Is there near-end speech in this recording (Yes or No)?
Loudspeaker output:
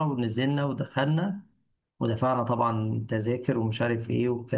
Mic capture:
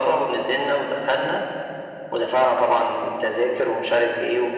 No